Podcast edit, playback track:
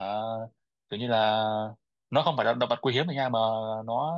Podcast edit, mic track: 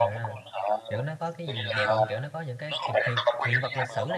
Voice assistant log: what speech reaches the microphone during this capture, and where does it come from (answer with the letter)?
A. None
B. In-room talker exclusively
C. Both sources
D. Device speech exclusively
C